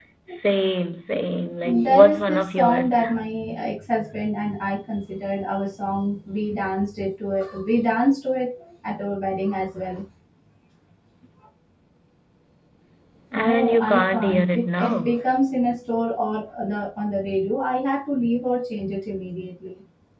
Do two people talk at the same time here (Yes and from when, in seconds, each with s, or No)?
Yes, from 1.6 s